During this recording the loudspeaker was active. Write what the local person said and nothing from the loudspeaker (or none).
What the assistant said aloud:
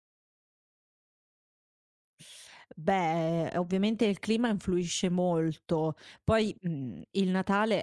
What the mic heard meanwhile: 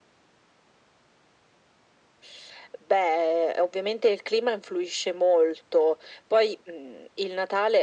none